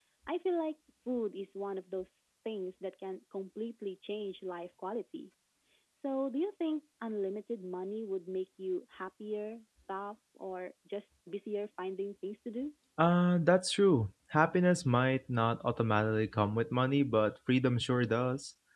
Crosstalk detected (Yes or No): No